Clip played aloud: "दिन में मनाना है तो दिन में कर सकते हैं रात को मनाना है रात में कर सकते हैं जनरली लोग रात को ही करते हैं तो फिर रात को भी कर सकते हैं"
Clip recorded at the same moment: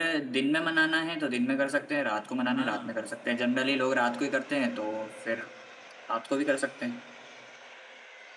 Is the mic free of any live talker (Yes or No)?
No